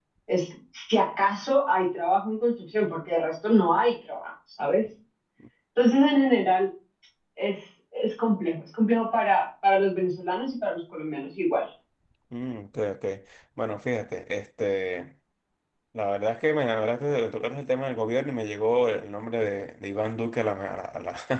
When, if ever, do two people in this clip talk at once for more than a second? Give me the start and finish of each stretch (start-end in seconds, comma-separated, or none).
none